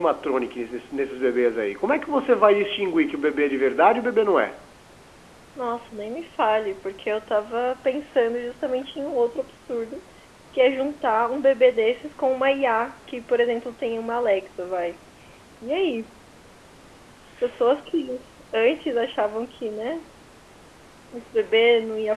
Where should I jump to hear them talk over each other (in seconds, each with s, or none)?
none